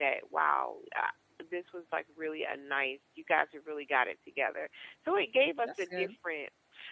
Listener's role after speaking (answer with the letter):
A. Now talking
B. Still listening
B